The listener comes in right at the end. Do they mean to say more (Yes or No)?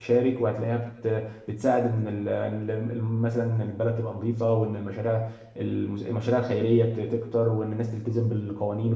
No